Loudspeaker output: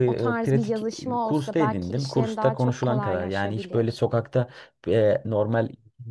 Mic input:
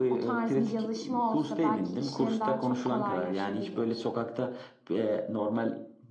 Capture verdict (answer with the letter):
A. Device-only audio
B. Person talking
A